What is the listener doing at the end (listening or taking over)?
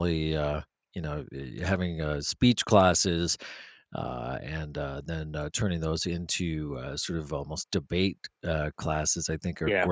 listening